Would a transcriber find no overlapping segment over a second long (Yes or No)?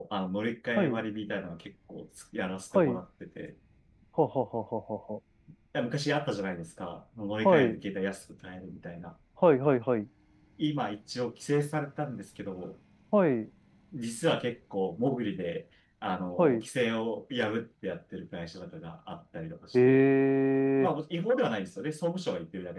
Yes